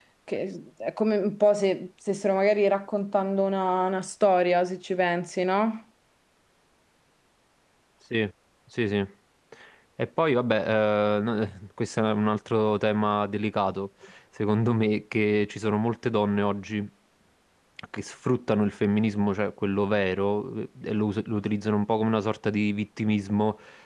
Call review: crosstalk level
none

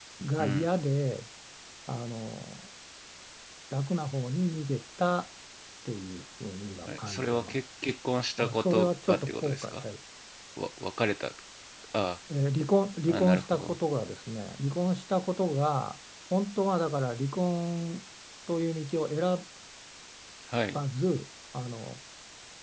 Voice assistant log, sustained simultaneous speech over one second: present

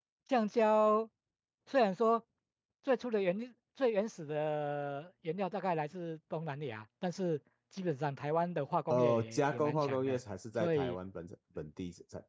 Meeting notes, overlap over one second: present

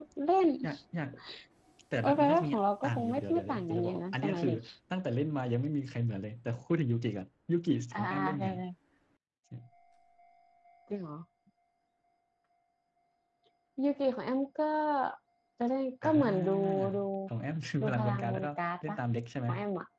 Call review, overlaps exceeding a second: present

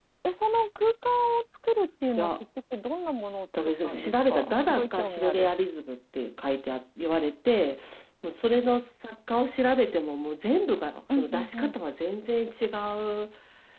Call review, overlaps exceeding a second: present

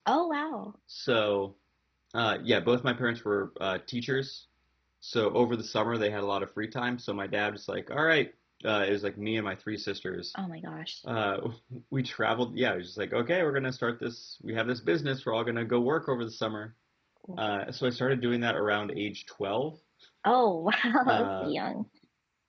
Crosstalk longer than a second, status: none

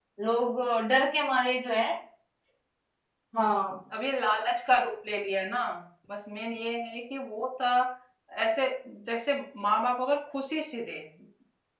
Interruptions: none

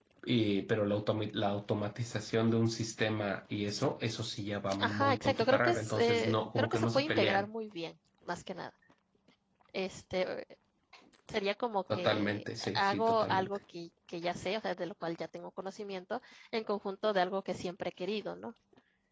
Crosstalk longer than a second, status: present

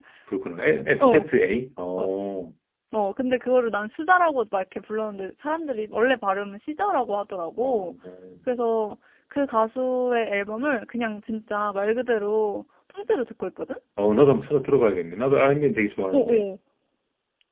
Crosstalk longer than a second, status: none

